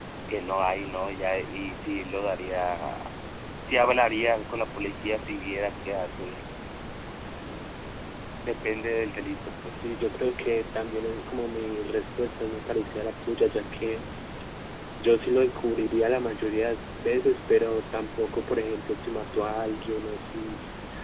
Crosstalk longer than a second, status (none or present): none